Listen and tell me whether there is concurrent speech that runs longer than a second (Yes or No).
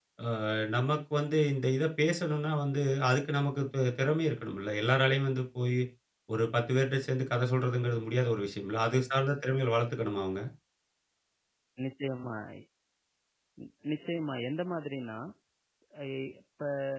No